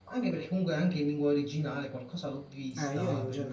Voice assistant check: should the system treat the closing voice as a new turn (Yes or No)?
Yes